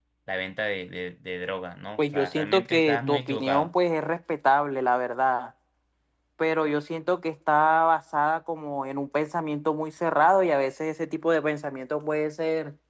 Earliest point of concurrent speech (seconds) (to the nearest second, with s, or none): 2 s